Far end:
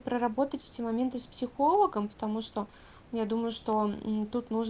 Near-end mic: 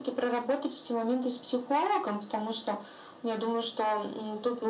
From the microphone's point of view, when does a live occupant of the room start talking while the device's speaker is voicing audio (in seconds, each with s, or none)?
none